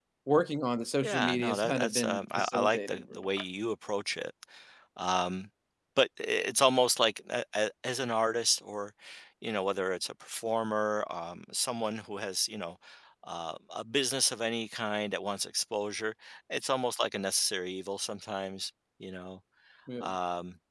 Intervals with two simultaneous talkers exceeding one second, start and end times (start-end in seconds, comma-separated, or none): 1.0-3.3